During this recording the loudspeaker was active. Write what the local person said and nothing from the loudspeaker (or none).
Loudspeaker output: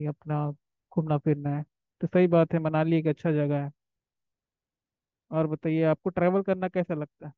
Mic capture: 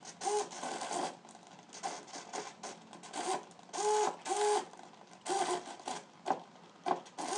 none